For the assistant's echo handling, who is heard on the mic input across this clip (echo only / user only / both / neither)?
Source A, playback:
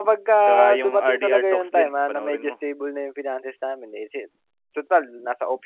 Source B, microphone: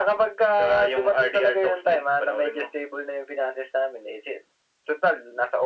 echo only